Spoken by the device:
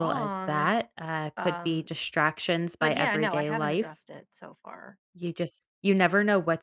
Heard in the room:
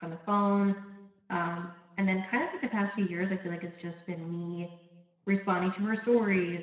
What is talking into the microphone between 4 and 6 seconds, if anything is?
user only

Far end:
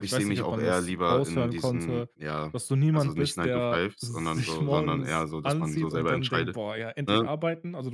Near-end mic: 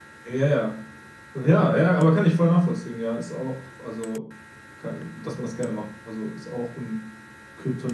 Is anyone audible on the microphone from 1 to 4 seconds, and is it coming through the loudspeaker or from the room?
user only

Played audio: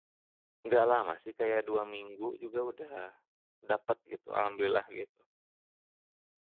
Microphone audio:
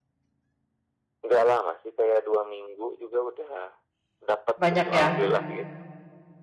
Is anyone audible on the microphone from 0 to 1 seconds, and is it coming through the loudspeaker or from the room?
neither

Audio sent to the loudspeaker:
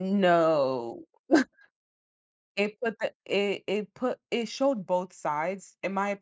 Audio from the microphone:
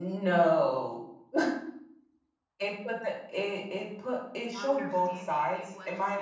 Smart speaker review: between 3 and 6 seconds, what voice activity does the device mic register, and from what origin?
both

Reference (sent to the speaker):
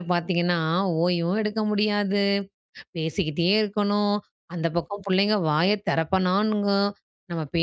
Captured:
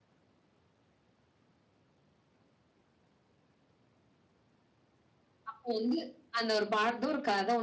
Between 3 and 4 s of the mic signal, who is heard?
neither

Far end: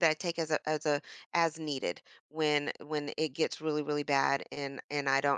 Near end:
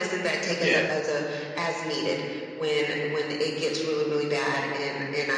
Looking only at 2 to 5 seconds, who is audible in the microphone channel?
echo only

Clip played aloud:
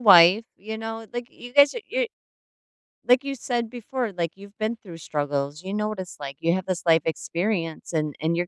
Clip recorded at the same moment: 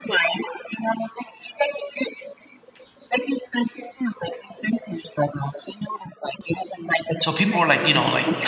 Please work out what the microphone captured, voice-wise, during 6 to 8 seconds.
both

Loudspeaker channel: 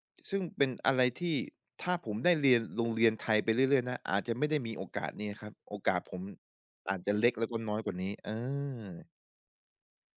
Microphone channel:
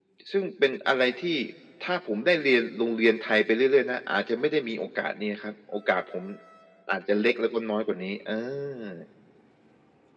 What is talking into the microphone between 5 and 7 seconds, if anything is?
echo only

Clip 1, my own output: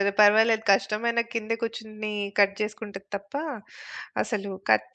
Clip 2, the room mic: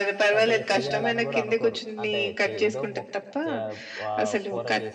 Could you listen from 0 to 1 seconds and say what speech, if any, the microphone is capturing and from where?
both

